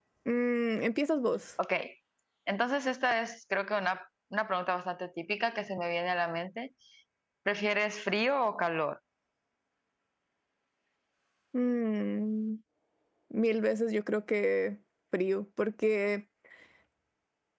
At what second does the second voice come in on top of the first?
none

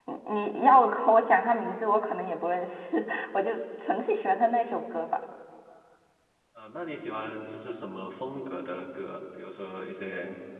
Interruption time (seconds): none

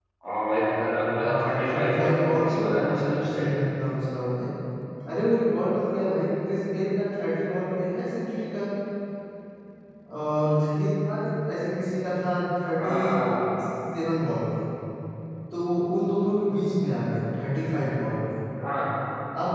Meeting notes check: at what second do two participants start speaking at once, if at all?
1 s

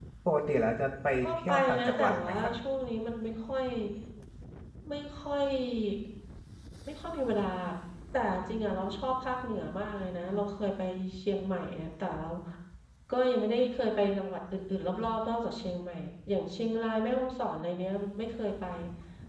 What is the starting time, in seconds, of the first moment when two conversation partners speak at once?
1 s

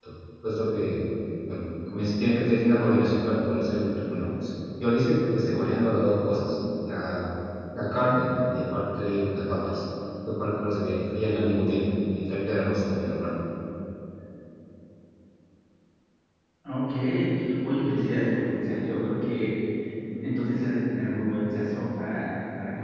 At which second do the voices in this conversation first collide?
none

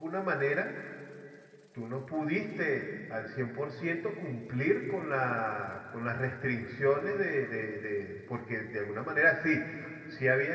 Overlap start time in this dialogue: none

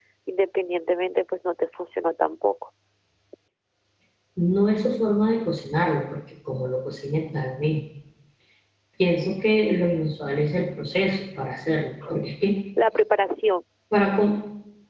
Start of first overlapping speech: none

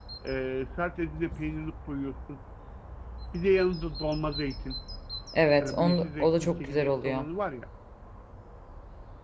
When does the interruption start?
6 s

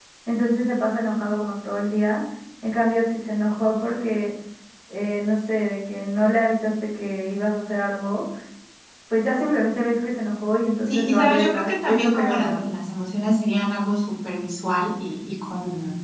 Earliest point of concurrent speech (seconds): 11 s

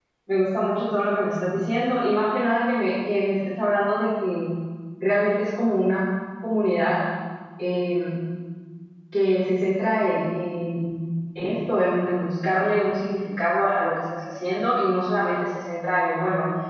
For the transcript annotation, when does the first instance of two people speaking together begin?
none

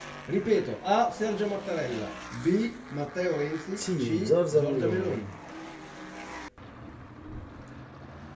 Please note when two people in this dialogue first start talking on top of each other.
4 s

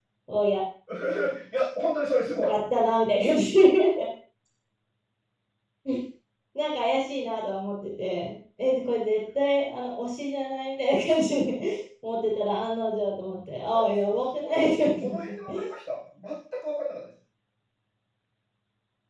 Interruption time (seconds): 14 s

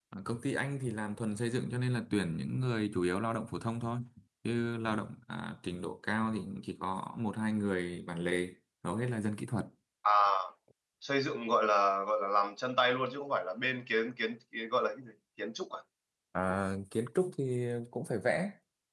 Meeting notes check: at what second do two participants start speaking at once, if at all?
none

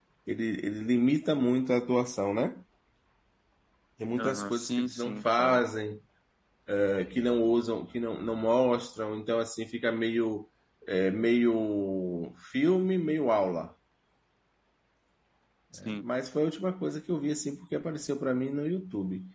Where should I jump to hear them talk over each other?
4 s

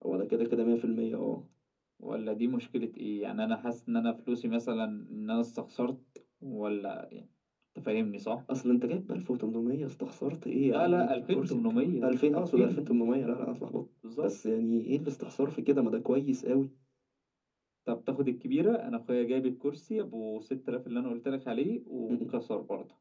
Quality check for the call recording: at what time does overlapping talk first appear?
11 s

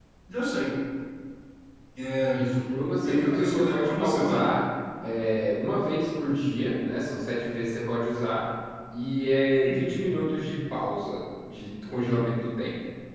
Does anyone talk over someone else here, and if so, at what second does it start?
3 s

